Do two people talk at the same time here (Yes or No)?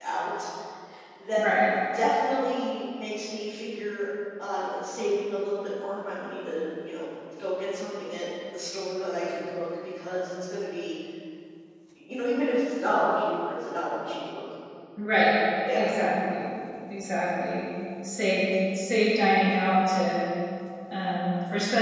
No